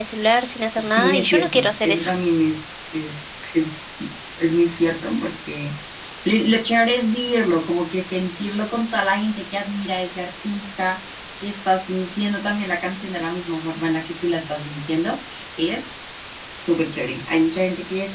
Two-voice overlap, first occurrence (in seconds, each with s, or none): 0.8 s